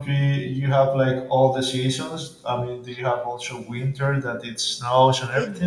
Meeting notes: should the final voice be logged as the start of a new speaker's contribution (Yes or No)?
Yes